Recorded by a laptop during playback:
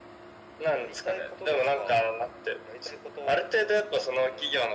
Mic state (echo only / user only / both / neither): echo only